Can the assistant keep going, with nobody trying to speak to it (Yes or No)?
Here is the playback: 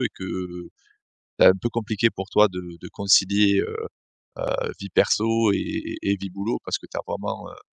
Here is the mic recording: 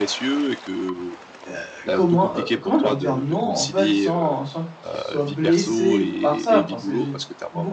No